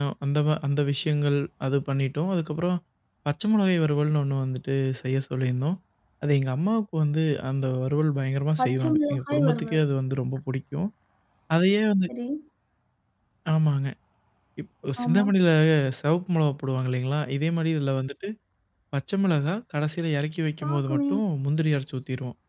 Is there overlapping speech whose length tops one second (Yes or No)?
Yes